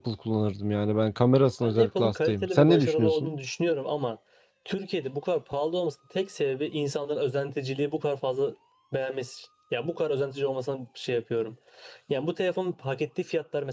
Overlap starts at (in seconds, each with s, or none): 1.6 s